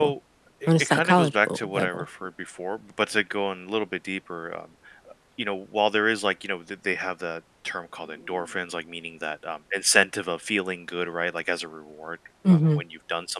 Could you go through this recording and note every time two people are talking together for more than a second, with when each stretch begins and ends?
0.7-2.0

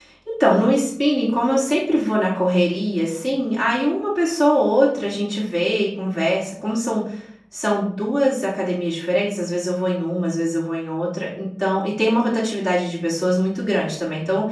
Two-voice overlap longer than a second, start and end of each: none

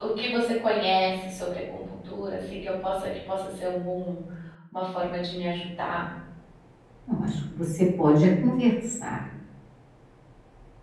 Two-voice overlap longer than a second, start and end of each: none

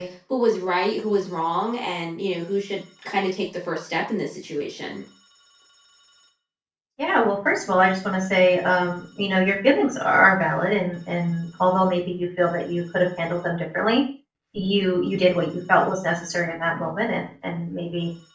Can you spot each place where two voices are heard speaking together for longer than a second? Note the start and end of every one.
none

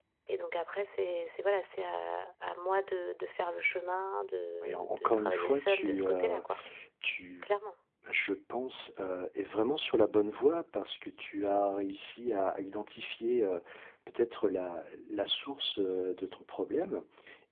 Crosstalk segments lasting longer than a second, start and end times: 4.6-6.4

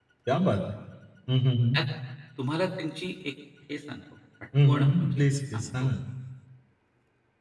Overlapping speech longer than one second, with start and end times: 4.6-5.9

